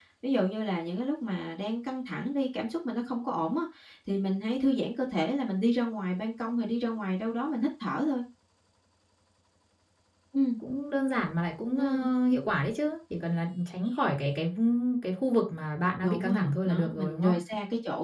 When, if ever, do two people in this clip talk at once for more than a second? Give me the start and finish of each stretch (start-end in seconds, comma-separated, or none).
16.0-17.4